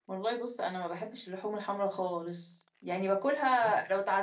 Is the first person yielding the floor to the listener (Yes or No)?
No